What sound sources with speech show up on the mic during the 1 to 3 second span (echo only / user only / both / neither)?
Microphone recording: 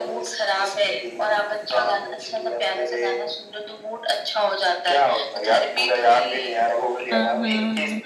echo only